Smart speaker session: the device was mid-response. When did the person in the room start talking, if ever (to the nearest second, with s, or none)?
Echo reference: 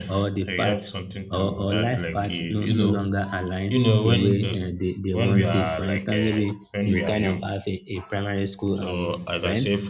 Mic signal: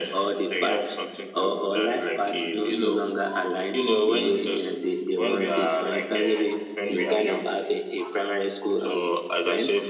none